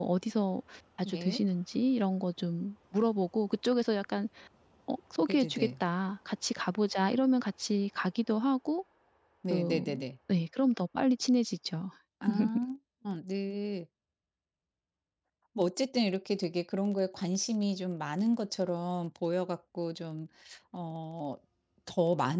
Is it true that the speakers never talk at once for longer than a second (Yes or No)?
Yes